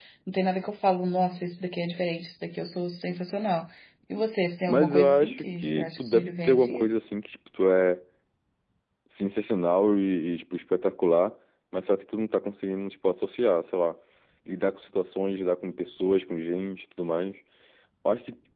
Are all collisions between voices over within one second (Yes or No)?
No